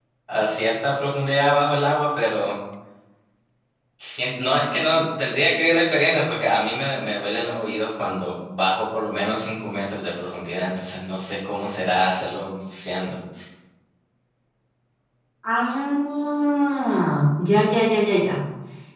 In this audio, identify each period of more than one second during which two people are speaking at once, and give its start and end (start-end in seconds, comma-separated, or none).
none